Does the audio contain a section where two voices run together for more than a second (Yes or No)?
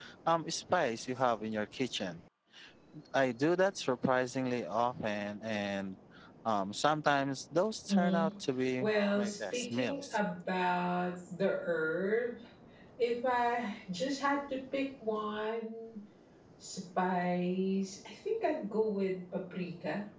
Yes